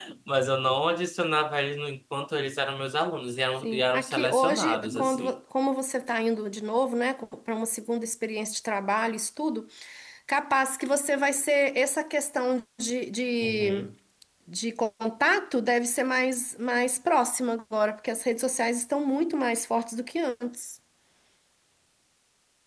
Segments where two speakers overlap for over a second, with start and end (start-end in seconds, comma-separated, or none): 3.6-5.4